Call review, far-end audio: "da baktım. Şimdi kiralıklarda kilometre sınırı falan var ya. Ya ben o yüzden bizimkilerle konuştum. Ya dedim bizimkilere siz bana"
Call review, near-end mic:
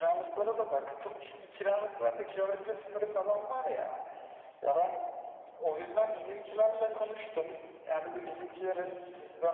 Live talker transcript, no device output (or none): none